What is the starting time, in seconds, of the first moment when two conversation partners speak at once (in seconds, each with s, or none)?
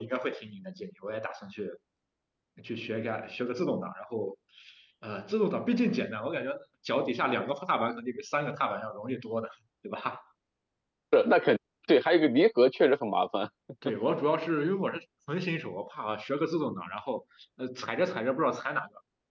none